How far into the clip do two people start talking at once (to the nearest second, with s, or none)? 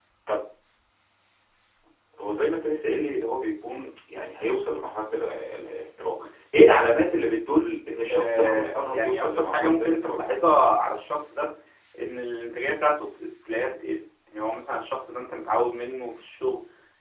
8 s